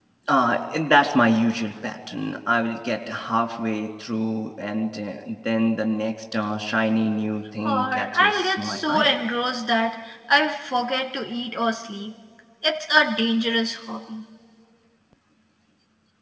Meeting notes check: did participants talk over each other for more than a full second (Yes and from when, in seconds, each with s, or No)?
Yes, from 7.6 s